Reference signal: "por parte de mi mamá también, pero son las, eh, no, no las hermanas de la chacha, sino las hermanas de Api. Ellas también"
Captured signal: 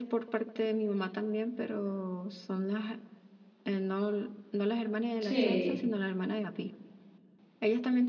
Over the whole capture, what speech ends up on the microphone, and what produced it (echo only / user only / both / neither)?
both